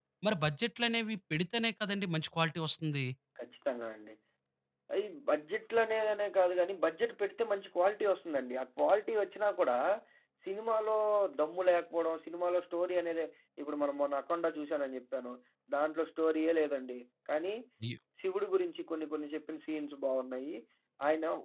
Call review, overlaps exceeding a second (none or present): none